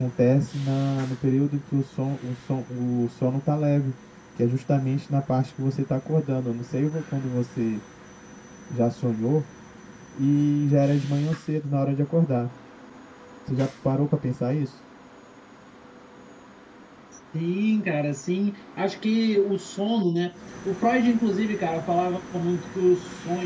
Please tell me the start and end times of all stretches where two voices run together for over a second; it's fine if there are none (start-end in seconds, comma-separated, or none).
none